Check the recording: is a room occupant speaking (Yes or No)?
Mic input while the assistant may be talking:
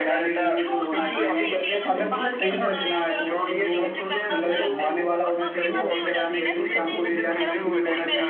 Yes